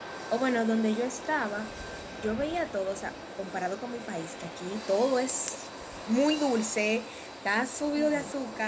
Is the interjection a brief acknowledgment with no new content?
Yes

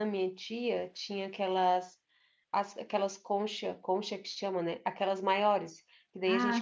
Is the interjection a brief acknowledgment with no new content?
Yes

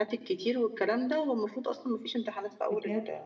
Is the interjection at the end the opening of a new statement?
Yes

